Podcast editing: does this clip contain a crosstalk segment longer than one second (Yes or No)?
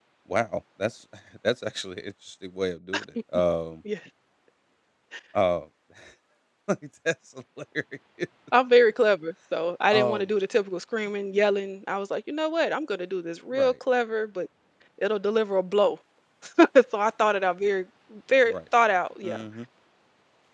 No